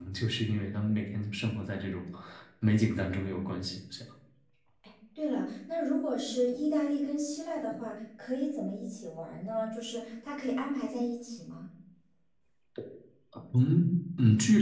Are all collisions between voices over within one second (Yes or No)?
Yes